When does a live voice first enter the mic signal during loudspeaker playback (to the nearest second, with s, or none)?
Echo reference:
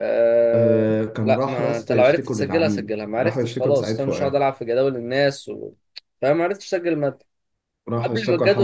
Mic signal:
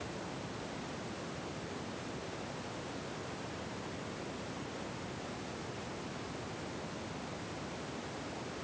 none